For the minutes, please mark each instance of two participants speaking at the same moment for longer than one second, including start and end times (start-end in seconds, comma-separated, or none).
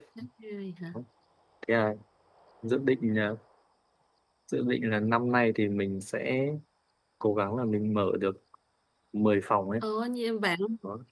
none